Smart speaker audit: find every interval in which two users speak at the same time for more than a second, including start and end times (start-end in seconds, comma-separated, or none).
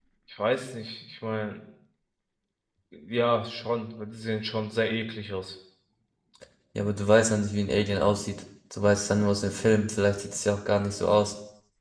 none